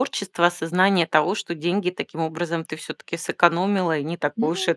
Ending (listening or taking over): taking over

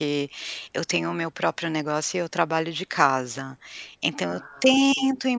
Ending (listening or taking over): listening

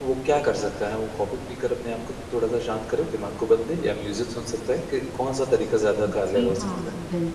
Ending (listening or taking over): taking over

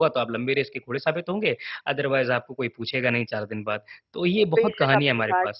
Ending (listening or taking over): taking over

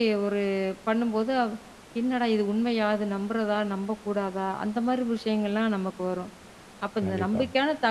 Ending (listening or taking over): listening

